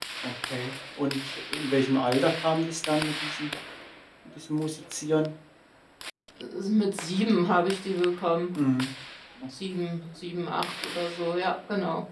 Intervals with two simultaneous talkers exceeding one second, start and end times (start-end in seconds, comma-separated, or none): none